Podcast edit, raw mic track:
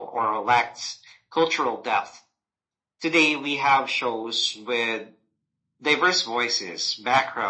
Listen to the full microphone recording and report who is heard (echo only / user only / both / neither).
echo only